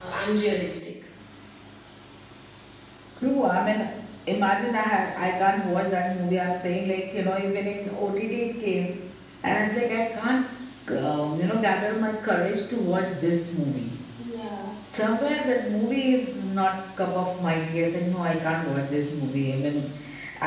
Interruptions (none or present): none